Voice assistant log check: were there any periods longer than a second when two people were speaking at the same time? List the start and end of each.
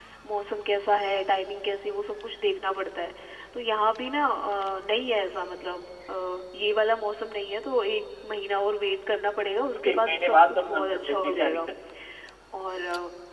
9.7-11.6

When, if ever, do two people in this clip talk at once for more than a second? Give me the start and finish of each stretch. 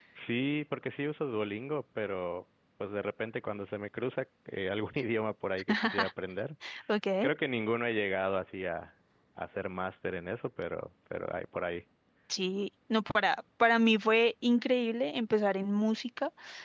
none

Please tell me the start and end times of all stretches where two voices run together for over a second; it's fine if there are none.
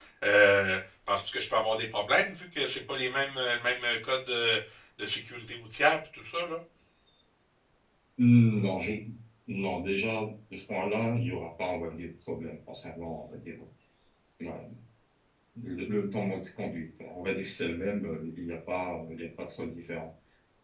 none

